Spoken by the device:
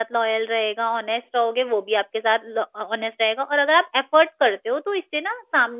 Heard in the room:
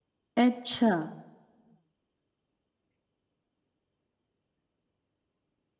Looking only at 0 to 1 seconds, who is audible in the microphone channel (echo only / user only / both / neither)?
user only